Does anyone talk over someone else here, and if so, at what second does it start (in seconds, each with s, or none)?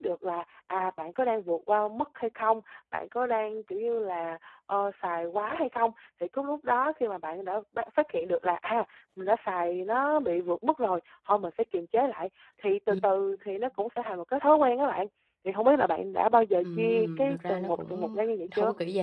16.6 s